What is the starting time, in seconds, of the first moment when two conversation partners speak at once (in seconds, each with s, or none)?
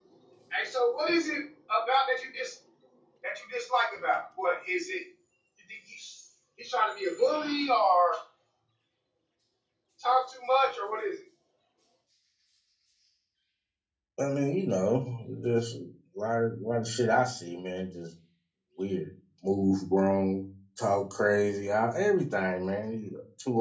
none